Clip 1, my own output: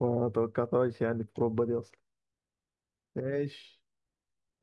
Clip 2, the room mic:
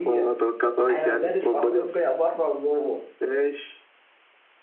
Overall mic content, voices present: both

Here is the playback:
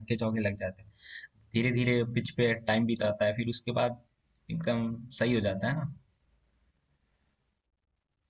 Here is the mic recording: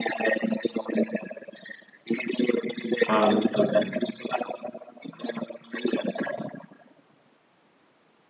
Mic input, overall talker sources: both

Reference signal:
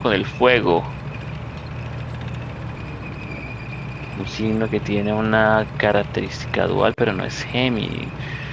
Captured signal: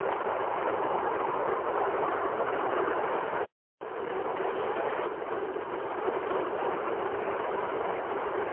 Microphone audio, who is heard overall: neither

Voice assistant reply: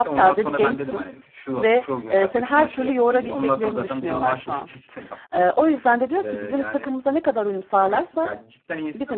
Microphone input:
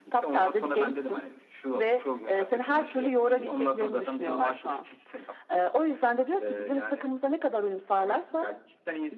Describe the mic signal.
echo only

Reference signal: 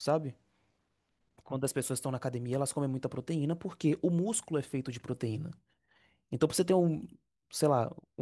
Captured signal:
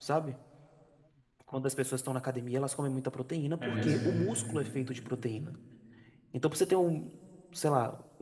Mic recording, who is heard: both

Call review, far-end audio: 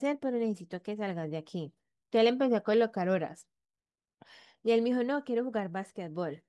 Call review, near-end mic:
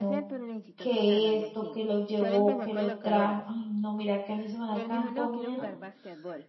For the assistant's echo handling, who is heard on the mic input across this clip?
both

